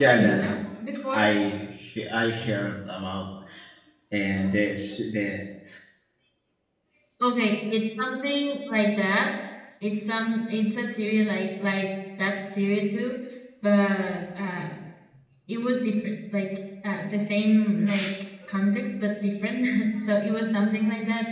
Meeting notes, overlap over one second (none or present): none